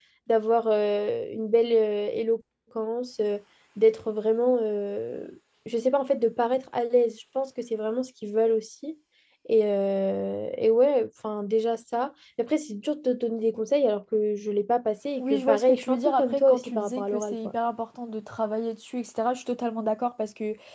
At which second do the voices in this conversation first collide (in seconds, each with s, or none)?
15.2 s